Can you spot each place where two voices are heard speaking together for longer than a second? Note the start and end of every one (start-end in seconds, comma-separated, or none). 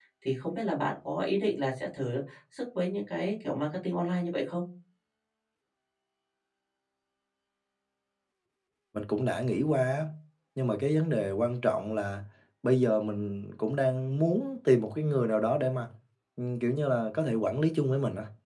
none